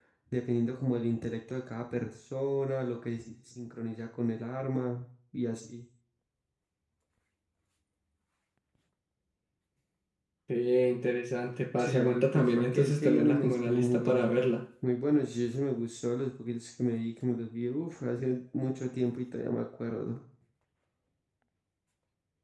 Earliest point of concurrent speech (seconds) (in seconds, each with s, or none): 11.8 s